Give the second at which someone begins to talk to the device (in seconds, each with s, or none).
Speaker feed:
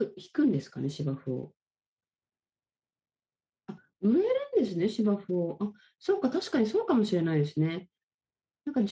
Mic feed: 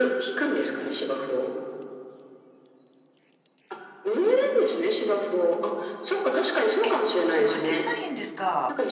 6.8 s